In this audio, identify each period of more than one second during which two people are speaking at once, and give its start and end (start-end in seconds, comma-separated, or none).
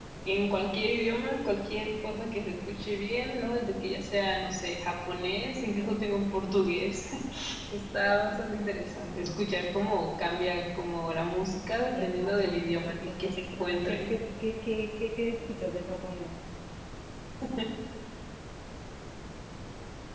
11.9-14.1